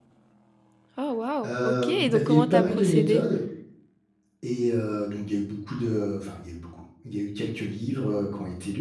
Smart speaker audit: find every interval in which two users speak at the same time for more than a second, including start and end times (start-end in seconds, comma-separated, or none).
1.4-3.2